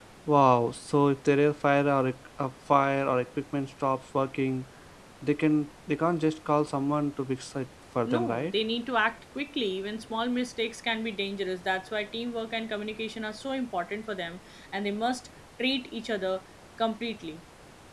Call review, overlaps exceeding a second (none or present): none